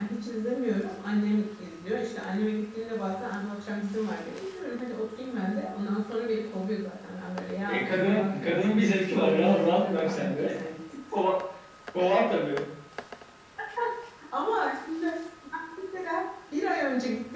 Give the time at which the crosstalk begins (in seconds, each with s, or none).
7.7 s